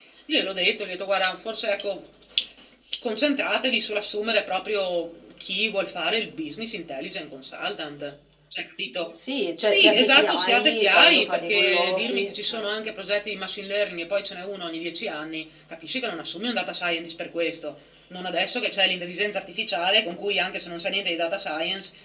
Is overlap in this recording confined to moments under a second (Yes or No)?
No